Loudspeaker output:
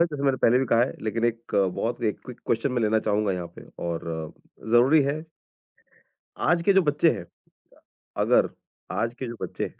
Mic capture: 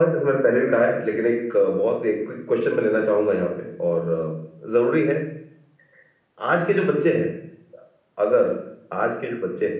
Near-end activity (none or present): none